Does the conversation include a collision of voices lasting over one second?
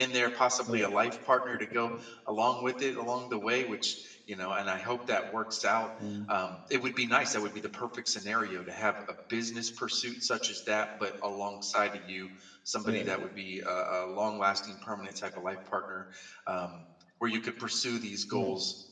No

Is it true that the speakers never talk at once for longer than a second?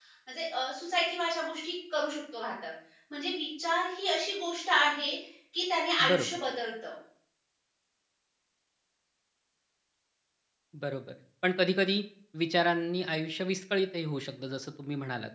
Yes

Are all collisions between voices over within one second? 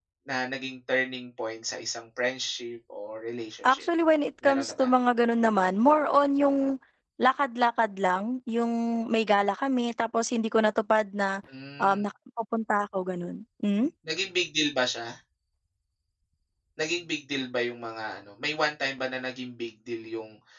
Yes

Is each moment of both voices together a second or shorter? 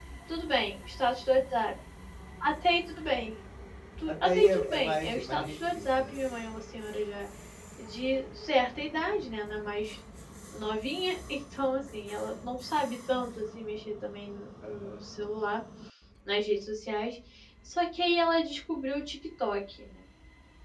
No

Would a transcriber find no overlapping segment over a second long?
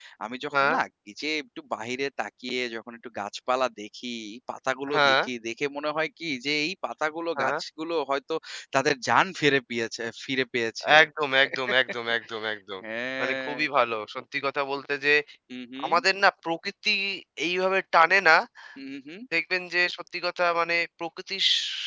Yes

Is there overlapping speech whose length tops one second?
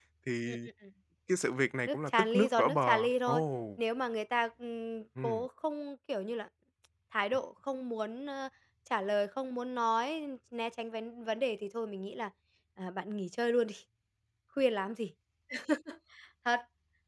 Yes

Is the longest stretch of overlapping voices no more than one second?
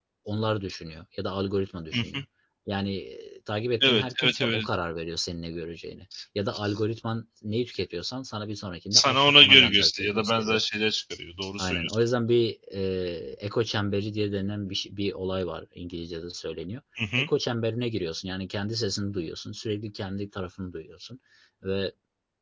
No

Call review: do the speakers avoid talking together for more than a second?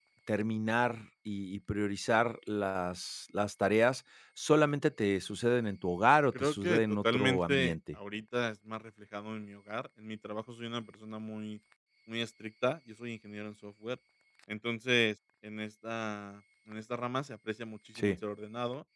No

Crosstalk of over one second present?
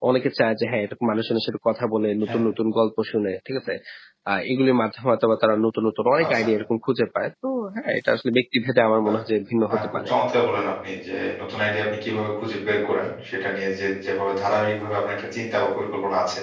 No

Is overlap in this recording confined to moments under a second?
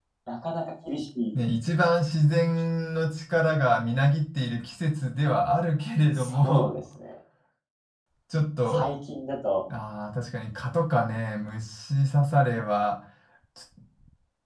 Yes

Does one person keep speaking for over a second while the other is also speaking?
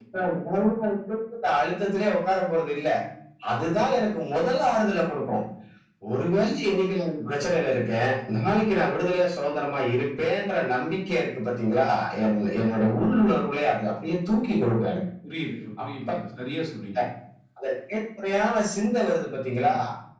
No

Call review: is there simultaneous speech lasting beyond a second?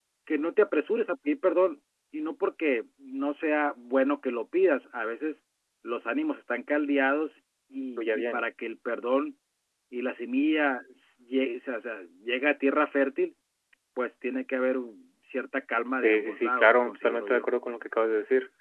Yes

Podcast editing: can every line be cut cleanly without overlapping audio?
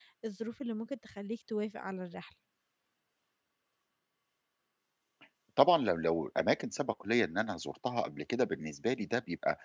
Yes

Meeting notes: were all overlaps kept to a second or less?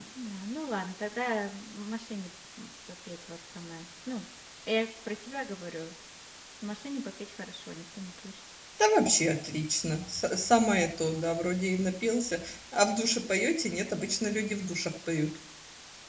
Yes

